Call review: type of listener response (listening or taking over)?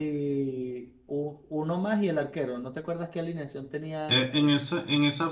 taking over